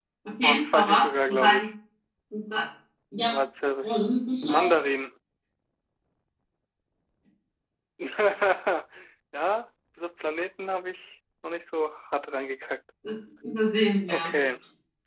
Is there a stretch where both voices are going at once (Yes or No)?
Yes